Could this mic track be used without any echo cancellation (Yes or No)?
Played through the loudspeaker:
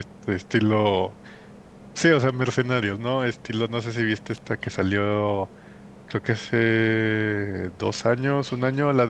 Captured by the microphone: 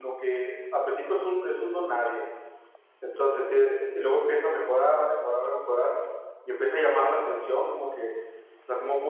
Yes